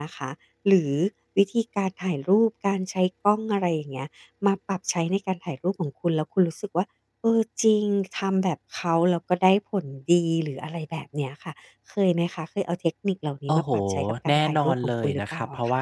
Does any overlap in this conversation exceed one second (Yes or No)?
Yes